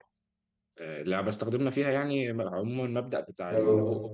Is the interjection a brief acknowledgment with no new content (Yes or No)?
Yes